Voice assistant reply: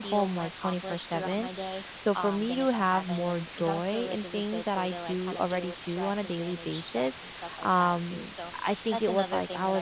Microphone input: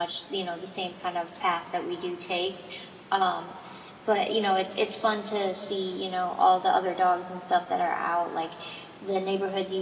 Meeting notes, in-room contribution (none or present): present